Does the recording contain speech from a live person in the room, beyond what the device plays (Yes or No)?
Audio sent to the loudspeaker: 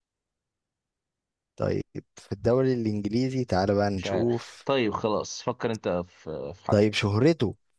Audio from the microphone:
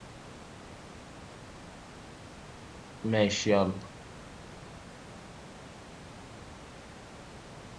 Yes